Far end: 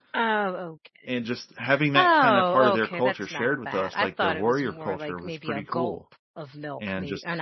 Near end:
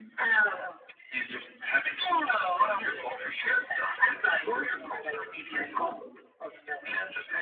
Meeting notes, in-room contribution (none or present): none